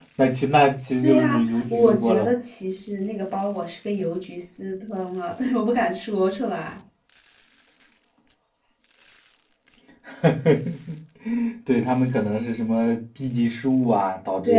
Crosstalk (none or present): present